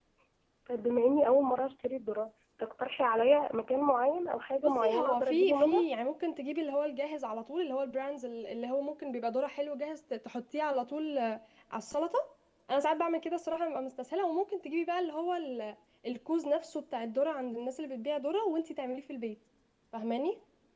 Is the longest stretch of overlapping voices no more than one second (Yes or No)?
No